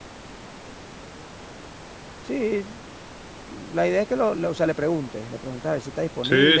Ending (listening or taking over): taking over